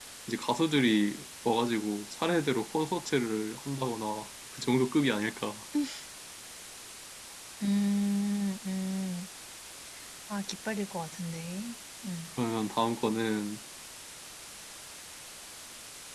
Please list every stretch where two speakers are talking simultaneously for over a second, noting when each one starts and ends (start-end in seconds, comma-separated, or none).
none